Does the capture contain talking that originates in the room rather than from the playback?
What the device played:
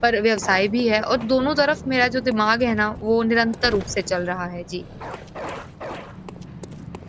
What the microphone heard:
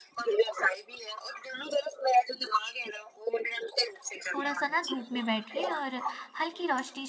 Yes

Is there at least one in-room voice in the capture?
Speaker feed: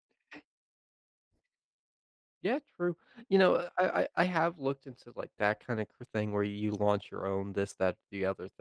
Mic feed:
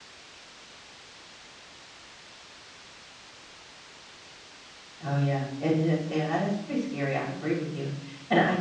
Yes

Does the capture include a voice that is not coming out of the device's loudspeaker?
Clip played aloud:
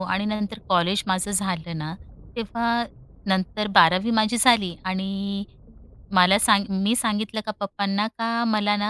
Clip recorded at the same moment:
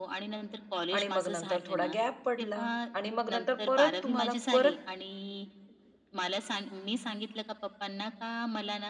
Yes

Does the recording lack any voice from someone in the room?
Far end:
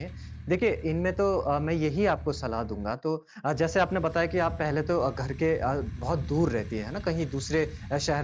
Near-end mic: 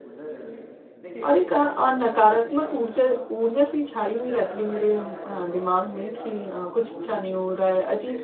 No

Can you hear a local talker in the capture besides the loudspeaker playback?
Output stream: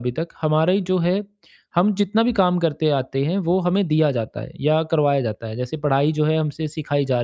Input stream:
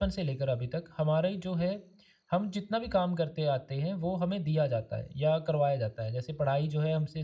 No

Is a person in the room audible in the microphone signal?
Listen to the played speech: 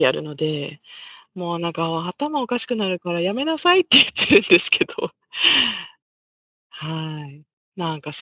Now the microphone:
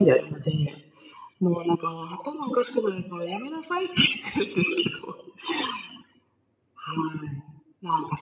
No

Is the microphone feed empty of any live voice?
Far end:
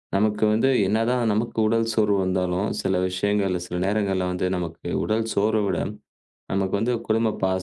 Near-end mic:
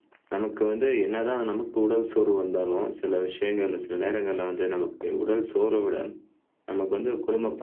Yes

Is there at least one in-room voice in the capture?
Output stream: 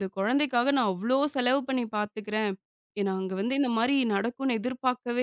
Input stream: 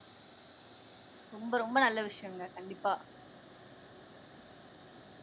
Yes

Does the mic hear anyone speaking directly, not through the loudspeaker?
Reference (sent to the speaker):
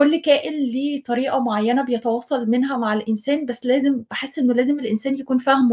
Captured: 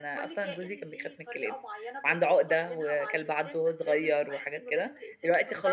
Yes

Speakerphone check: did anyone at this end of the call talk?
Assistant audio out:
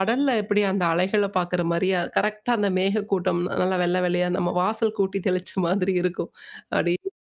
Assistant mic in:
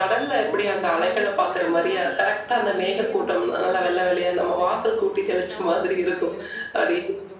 Yes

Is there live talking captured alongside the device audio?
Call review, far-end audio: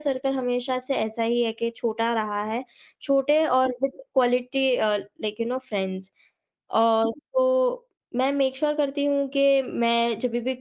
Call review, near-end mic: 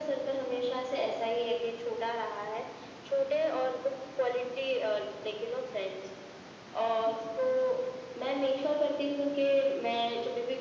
No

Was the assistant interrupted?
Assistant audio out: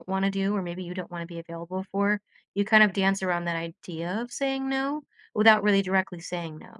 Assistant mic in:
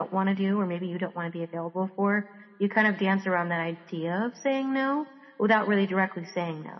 No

